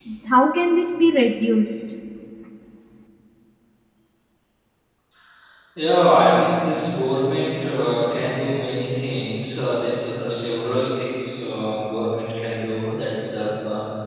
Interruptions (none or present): none